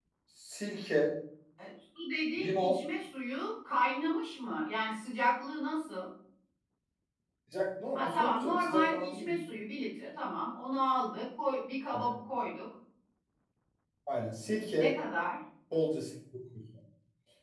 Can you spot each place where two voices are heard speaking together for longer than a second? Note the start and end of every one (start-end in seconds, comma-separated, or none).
8.0-9.3